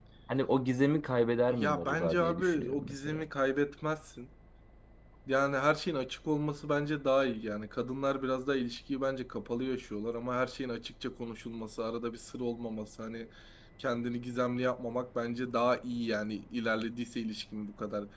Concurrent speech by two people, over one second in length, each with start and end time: 1.5-3.2

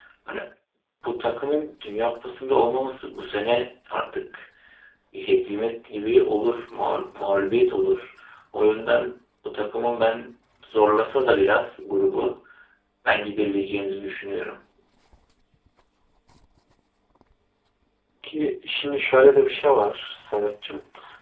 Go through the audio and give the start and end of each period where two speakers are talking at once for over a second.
none

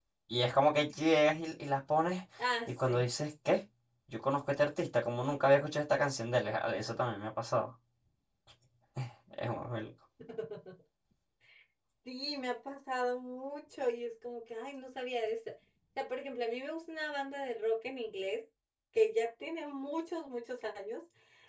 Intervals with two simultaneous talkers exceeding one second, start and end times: none

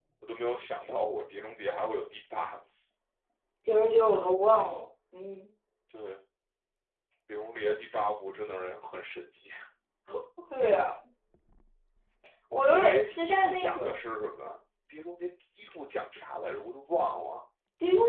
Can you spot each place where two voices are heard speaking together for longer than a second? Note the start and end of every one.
12.7-13.9

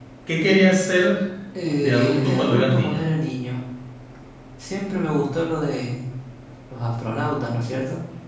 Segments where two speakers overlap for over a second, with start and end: 1.8-3.0

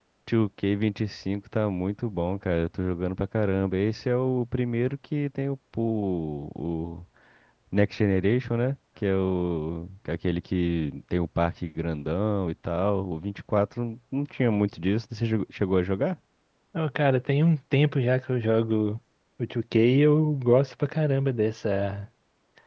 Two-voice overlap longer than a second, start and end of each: none

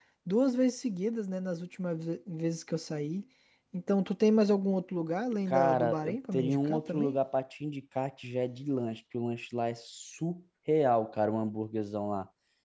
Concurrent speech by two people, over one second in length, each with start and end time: 5.5-7.2

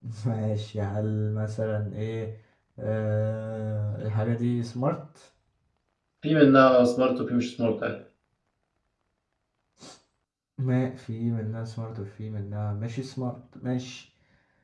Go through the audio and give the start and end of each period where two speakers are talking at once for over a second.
none

